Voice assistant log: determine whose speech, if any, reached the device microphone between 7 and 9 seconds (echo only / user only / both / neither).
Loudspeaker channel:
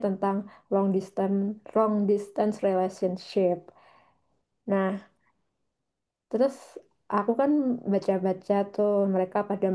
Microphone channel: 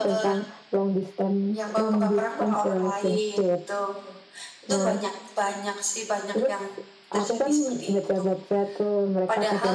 both